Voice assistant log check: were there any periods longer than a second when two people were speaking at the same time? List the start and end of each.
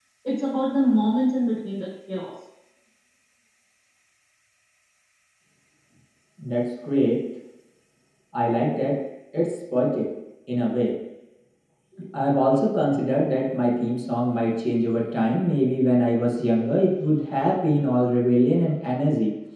none

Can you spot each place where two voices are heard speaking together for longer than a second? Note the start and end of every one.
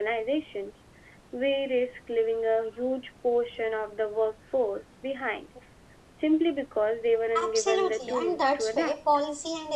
7.4-8.9

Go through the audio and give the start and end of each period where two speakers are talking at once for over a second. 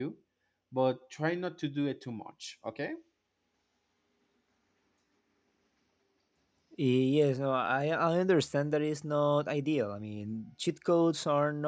none

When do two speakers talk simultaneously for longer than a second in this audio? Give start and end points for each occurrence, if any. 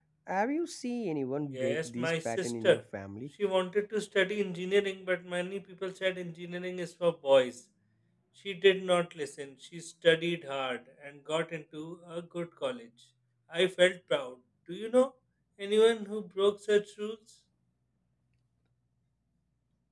1.5-2.8

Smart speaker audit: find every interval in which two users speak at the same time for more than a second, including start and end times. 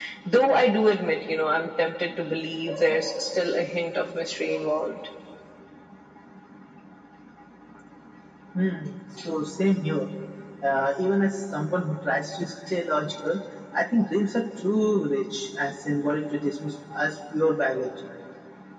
none

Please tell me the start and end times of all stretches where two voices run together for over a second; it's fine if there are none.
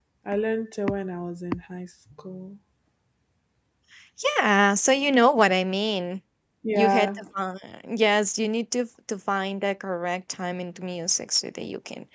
none

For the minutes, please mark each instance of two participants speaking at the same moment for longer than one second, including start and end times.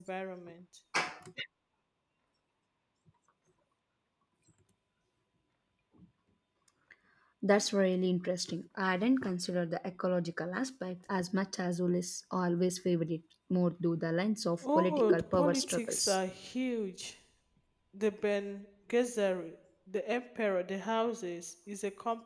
14.6-16.2

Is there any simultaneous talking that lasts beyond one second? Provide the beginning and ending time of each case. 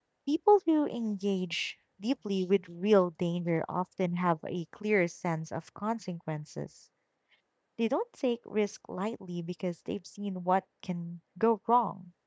none

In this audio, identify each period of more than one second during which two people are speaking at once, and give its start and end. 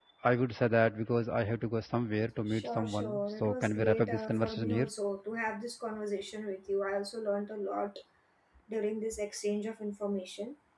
2.5-4.9

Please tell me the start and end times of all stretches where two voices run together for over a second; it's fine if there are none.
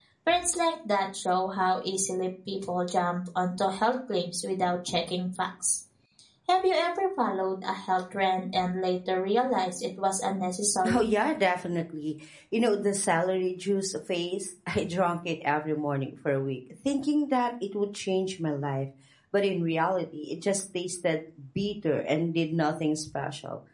none

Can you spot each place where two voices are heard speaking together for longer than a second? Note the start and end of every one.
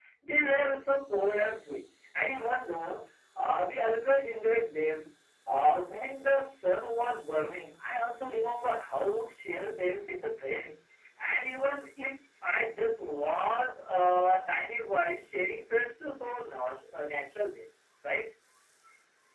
none

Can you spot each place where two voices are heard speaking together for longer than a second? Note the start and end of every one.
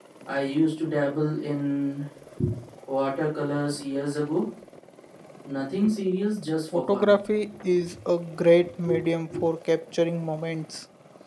none

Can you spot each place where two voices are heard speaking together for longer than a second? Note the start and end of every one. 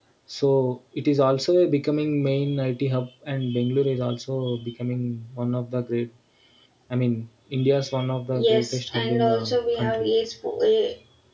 8.5-10.1

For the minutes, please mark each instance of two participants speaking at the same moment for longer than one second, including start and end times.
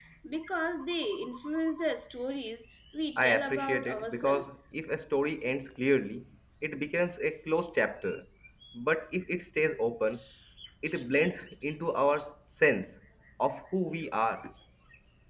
3.2-4.6

